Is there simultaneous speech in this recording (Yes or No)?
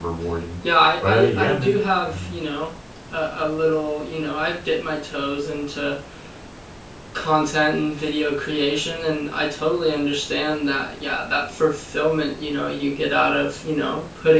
Yes